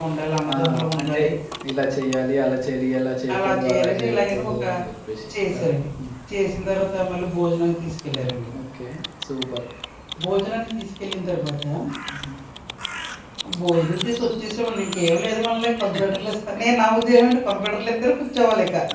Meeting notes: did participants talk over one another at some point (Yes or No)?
Yes